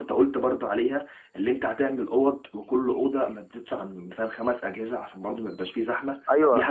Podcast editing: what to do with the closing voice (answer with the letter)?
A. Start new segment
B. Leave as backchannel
A